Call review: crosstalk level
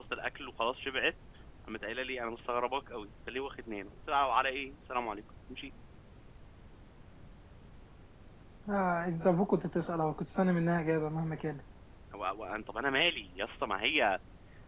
none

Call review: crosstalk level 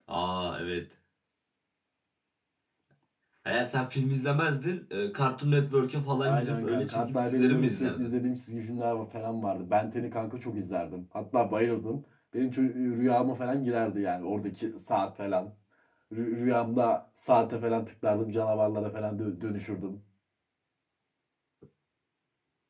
present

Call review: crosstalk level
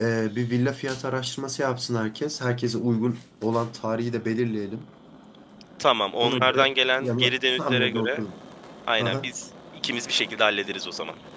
present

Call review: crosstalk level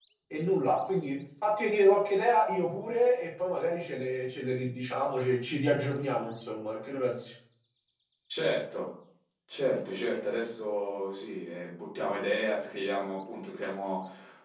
none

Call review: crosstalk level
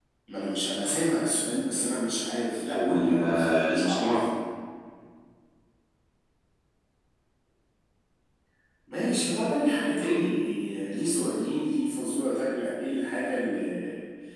present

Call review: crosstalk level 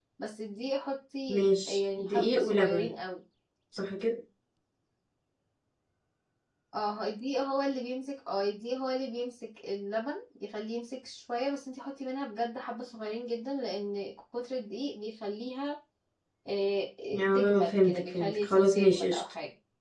present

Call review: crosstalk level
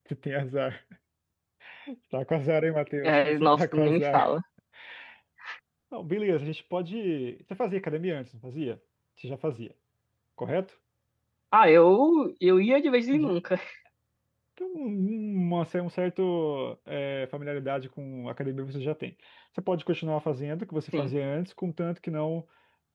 present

